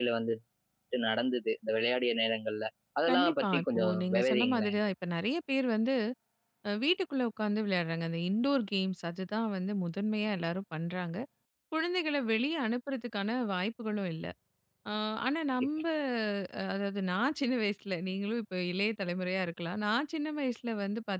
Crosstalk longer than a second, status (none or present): present